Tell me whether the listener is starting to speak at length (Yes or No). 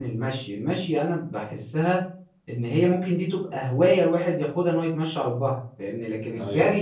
No